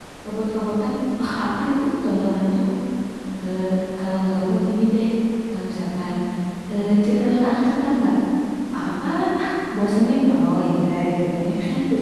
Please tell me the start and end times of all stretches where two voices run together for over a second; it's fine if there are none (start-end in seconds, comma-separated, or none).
none